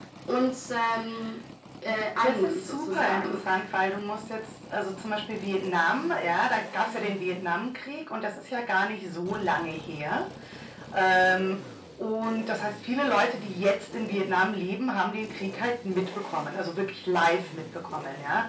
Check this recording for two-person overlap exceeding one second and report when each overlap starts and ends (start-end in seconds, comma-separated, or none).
1.9-3.4